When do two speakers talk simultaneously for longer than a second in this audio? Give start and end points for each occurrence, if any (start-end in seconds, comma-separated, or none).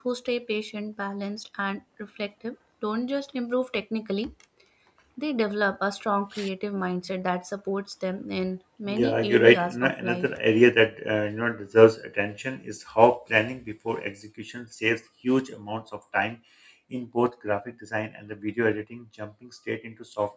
8.9-10.3